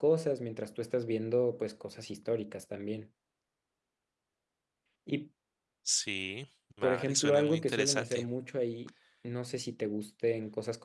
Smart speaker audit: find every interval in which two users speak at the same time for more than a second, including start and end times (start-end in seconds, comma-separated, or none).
6.8-8.2